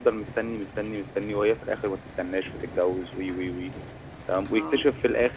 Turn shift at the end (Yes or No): No